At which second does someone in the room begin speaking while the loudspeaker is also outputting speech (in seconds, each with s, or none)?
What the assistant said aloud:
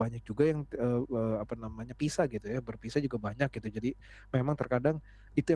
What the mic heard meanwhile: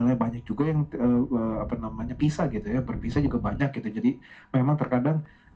none